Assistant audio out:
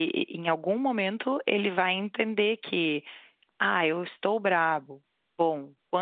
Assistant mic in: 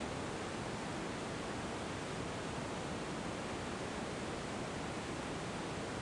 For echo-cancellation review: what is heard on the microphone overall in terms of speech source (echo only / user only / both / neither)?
neither